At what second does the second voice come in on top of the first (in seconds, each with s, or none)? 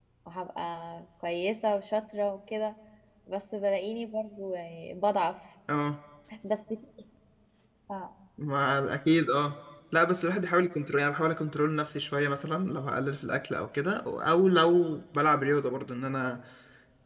none